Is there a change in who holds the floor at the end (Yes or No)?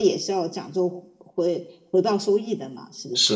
Yes